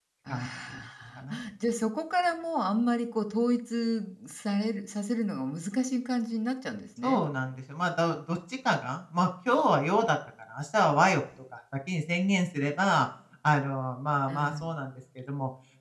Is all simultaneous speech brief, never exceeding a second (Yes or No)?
Yes